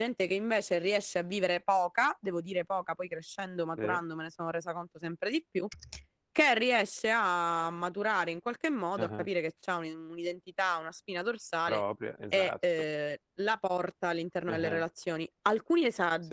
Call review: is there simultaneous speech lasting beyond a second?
No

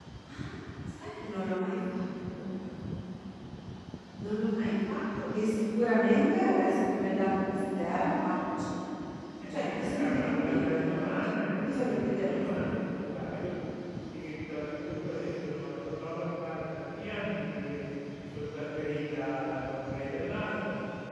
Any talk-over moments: Yes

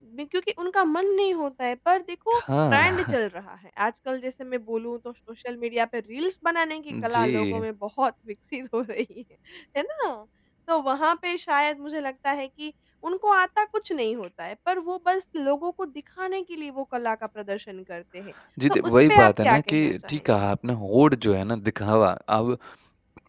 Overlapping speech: Yes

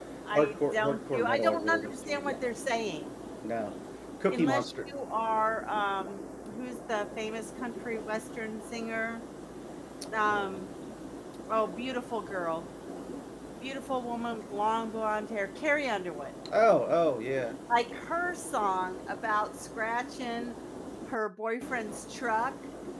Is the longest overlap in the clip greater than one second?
Yes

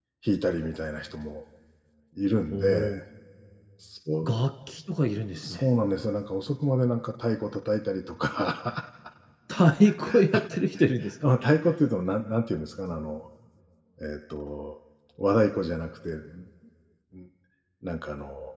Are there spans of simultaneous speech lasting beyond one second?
No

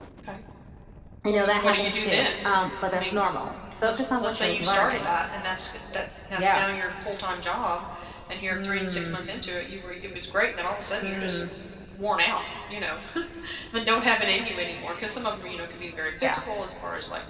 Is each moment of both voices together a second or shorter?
No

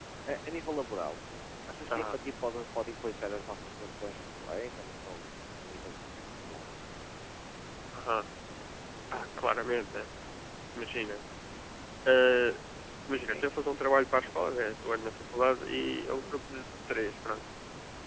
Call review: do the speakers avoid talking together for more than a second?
Yes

